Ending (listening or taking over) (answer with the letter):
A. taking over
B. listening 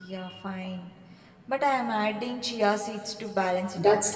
A